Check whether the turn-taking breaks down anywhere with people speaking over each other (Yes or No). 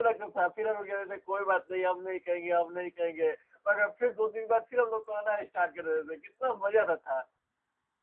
No